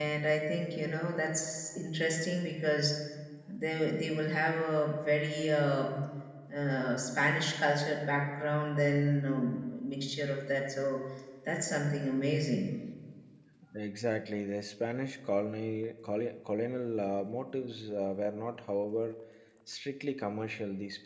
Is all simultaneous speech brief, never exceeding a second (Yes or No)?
Yes